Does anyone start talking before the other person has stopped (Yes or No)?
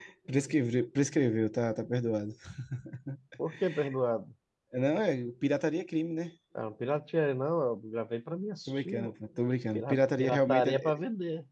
Yes